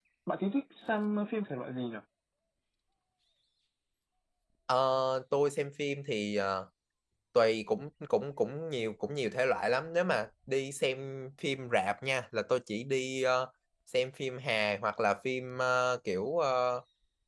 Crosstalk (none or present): none